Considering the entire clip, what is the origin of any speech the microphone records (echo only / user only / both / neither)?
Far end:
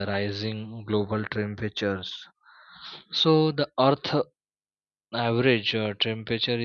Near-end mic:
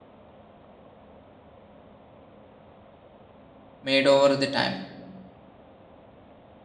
user only